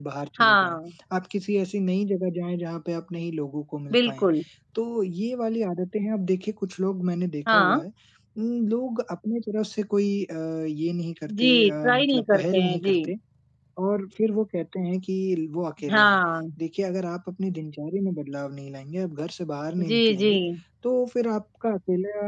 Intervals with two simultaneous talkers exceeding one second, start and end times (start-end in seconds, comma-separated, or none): 11.3-13.1